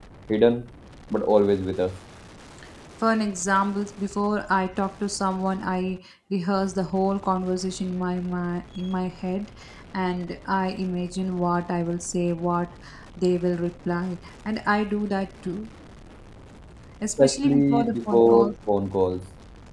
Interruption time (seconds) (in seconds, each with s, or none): 17.2 s